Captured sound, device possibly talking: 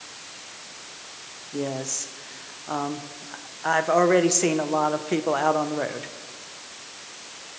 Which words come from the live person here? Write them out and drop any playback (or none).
yes. Um, I've already seen a lot of people out on the road,